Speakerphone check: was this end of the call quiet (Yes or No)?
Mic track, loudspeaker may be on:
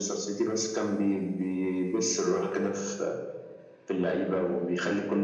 Yes